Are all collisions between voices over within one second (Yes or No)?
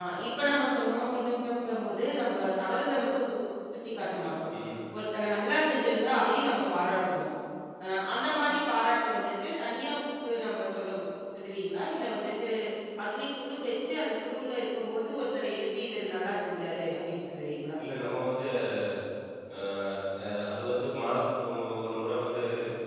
Yes